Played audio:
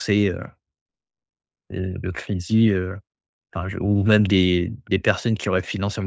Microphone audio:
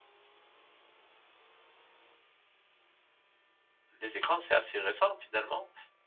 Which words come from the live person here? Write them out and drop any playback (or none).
les écrans, c'est assez récent finalement,